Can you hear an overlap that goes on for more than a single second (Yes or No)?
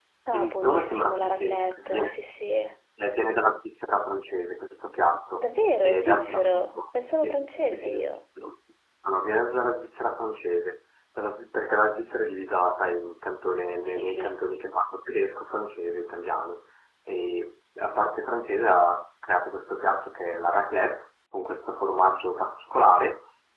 Yes